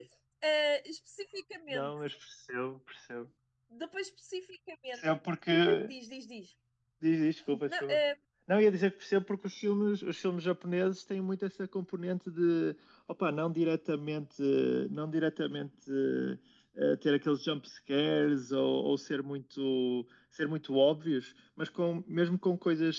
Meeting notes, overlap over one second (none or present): none